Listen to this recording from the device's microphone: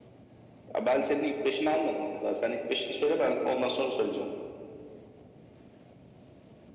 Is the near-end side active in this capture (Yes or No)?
No